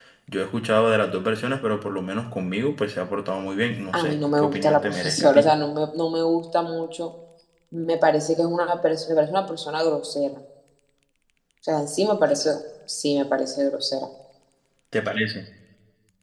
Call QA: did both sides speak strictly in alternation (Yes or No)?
No